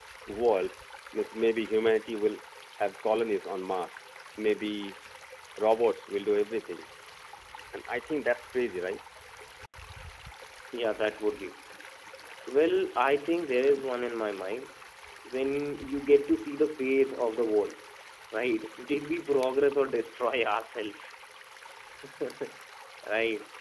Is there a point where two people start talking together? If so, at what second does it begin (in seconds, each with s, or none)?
none